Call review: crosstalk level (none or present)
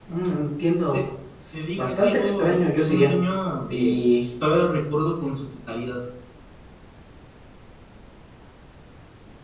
present